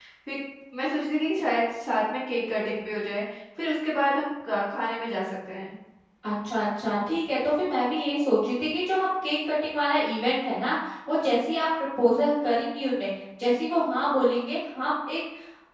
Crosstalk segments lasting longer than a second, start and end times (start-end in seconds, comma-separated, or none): none